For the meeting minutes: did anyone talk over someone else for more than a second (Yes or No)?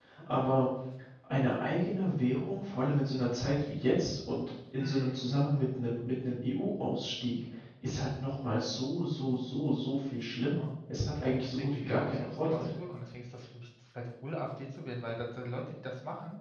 Yes